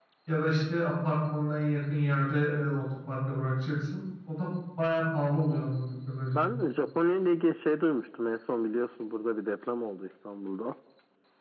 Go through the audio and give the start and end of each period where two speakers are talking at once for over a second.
none

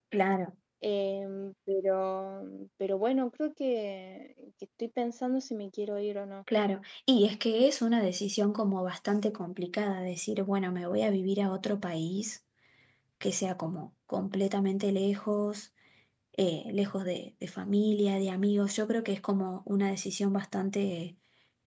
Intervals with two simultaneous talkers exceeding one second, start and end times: none

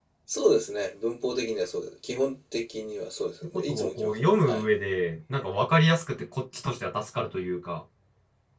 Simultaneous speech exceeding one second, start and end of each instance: 3.4-4.6

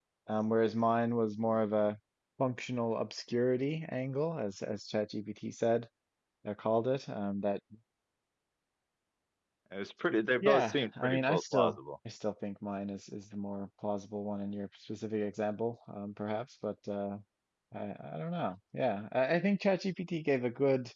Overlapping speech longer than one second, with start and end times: 10.4-11.8

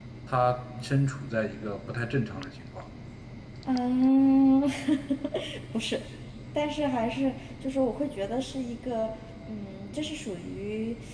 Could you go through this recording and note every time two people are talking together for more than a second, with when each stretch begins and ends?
none

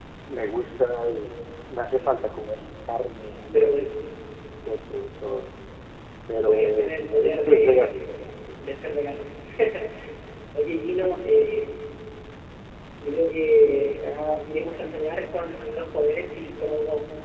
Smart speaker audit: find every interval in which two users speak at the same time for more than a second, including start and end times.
6.4-7.9

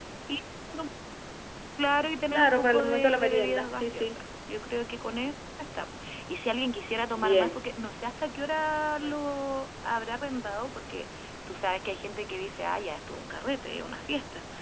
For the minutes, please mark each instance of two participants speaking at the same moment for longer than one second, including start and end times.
2.3-4.2

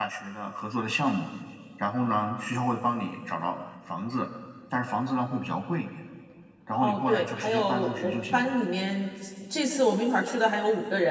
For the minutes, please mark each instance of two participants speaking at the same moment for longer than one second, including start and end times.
6.8-8.5

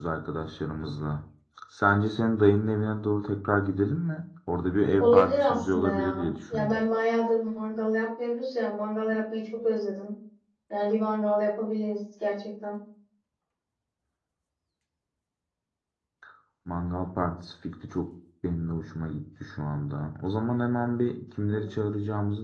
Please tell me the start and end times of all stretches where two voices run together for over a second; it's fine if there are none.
5.0-6.8

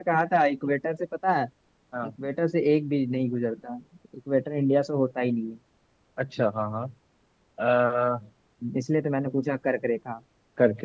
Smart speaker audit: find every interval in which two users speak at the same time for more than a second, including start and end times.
none

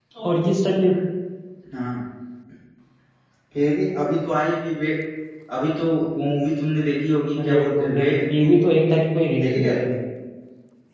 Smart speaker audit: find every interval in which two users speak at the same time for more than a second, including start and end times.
7.4-8.6

